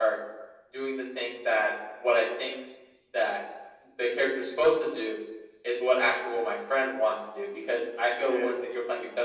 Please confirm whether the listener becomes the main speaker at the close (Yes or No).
No